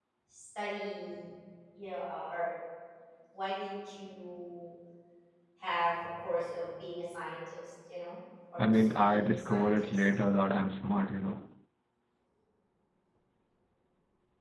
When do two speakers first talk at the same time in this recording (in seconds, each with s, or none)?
8.6 s